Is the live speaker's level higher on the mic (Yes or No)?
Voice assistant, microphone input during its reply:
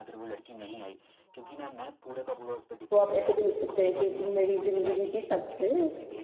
Yes